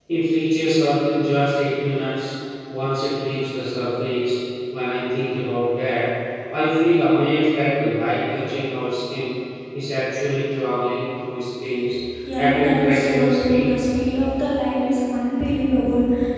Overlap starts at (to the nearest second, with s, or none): 12 s